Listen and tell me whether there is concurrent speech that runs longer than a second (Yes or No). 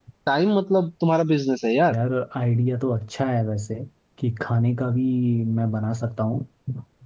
No